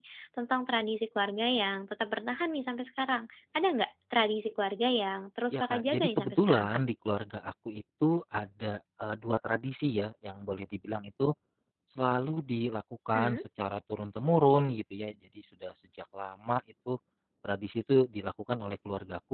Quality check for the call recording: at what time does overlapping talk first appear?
5.5 s

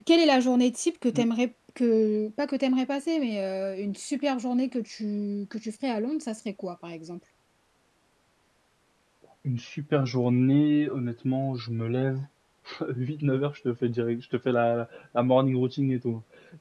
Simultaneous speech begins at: none

